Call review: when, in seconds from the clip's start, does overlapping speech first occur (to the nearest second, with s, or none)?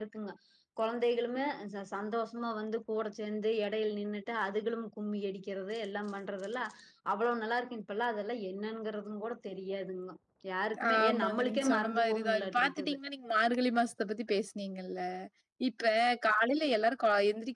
11 s